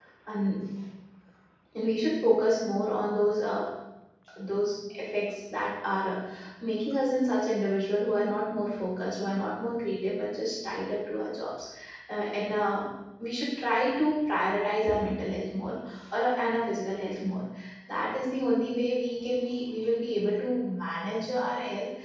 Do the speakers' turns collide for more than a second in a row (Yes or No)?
No